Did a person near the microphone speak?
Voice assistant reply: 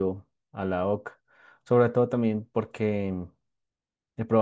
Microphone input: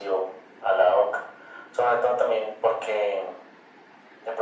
No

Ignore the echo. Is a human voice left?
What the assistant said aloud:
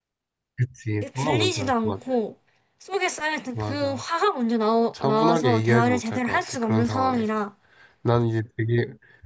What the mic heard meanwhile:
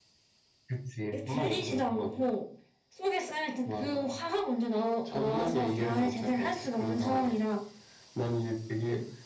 No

